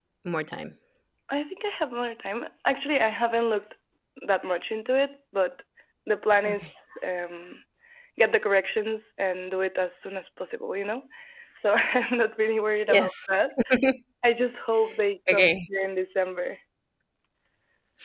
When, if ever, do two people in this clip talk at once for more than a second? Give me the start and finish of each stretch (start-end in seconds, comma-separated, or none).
none